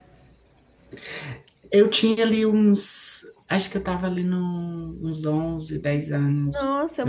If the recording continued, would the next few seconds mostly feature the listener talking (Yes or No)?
Yes